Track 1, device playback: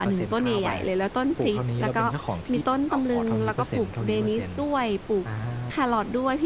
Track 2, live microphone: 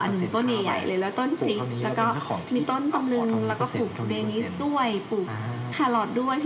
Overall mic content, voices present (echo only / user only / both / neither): echo only